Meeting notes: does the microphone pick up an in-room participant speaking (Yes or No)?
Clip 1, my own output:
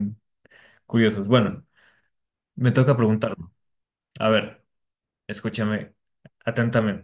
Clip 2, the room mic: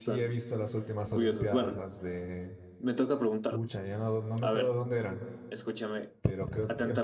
Yes